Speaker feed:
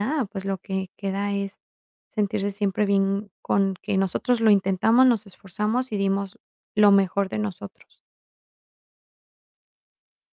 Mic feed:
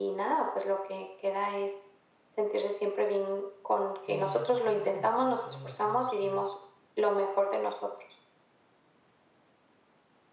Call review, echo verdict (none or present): present